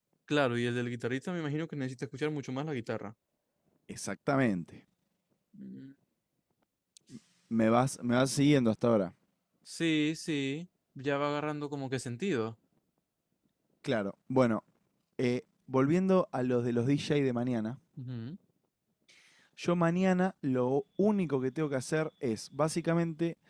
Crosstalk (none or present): none